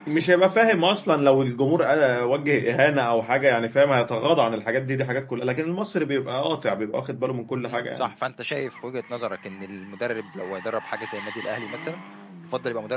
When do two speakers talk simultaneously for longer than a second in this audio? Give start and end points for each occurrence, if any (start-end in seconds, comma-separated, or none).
none